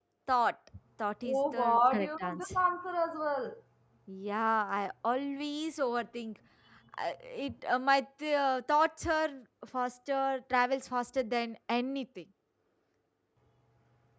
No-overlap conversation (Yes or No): No